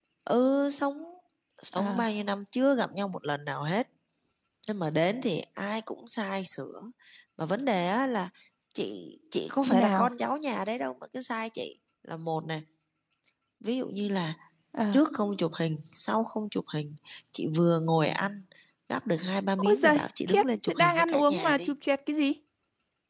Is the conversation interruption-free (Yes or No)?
No